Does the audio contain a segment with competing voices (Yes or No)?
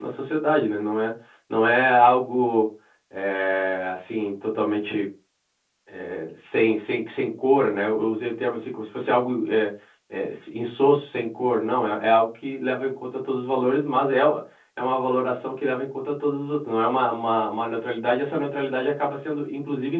No